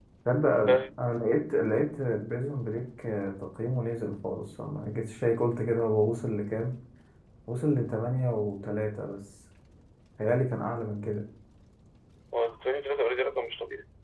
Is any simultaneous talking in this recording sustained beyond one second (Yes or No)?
No